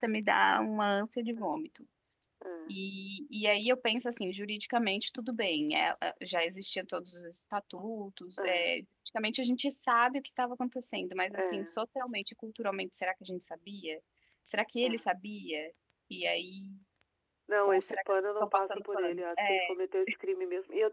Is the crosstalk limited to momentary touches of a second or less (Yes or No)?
No